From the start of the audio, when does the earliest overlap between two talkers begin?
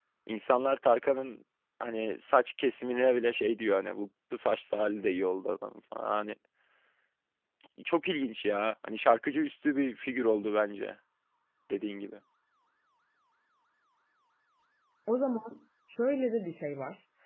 none

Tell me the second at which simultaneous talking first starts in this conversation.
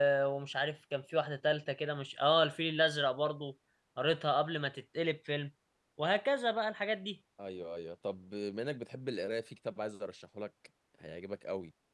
none

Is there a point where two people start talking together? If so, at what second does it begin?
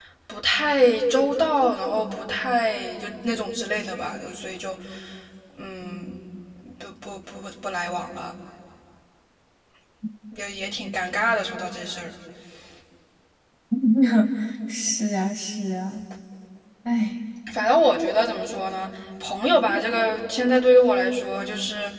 none

